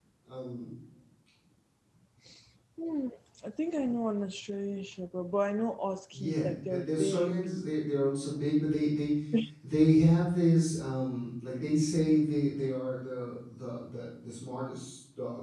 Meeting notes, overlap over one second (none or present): present